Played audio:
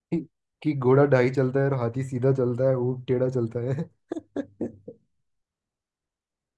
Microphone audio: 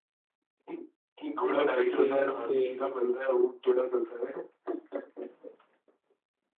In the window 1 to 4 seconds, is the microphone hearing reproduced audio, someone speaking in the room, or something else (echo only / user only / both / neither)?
both